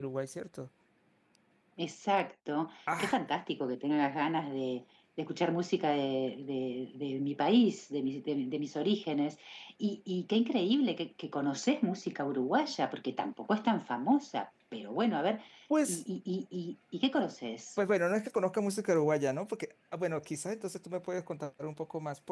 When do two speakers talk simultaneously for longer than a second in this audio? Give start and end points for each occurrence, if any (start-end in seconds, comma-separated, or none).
none